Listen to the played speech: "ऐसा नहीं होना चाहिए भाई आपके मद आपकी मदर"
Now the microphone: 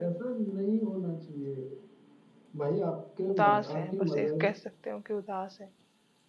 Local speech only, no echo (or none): उदास हैं बस ये कह सकते हो कि उदास हैं।